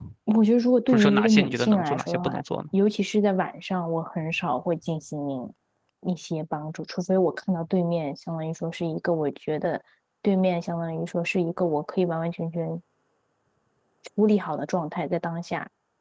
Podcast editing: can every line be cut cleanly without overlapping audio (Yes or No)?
No